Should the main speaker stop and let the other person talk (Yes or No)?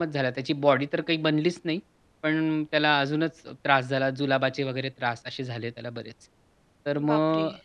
No